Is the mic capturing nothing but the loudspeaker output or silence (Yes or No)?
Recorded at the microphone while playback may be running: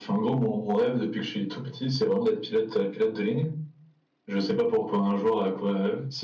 No